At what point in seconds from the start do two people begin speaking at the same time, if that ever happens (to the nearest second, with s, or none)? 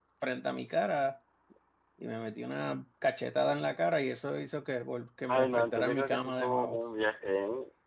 5 s